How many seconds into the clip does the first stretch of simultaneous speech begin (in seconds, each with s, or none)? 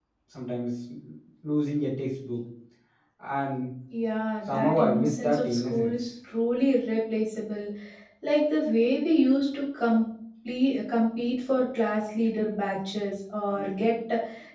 4.5 s